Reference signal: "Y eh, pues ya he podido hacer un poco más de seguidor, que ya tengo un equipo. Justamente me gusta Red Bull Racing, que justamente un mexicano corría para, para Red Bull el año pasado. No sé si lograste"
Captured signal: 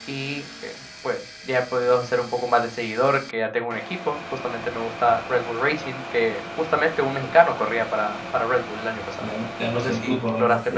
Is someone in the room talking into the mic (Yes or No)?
Yes